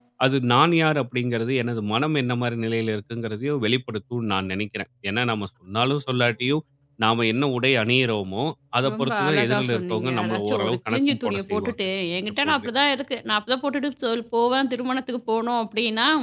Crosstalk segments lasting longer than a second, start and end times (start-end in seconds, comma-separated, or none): 8.9-11.8